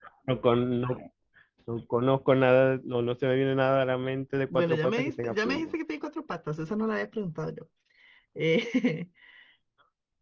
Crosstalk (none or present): present